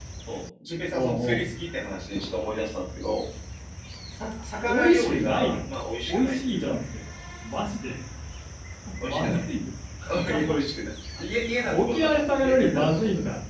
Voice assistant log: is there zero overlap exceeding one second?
No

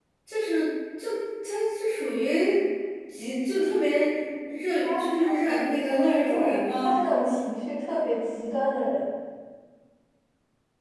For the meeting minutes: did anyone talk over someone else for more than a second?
Yes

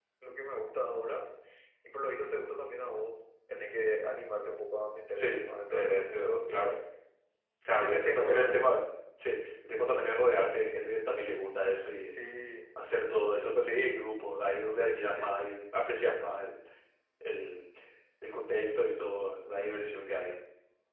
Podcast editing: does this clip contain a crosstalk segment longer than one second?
Yes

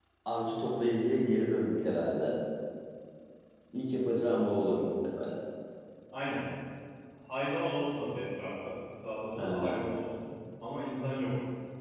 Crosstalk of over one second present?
No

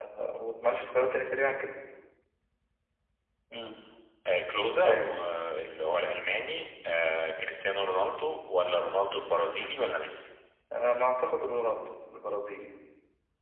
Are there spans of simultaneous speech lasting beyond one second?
No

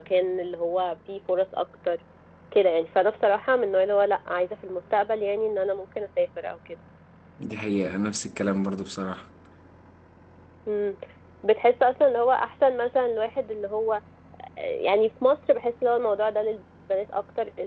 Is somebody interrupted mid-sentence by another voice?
No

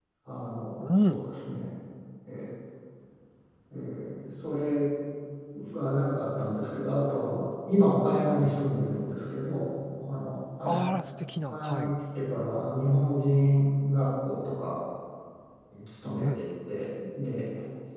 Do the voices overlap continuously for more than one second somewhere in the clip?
No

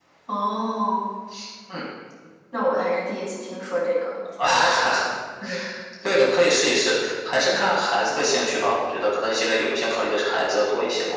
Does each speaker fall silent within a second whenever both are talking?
Yes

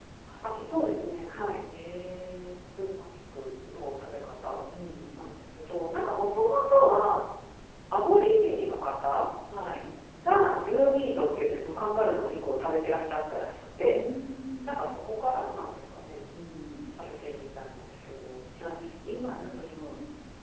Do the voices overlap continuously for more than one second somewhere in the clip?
No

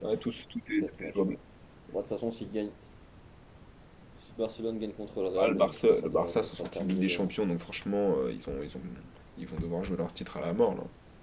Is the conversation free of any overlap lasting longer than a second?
No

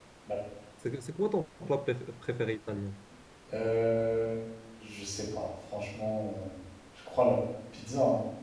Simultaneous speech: No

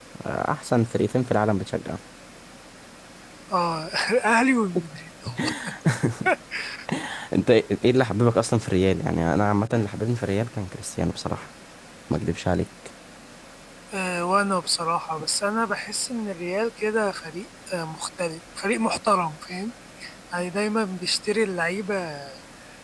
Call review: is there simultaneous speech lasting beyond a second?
No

